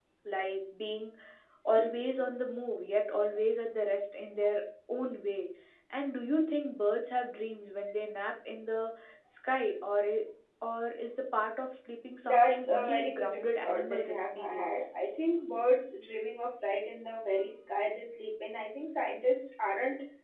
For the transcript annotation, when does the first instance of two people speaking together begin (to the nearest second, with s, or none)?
12 s